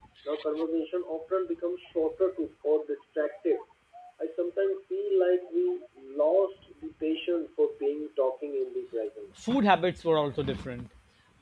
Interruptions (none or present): none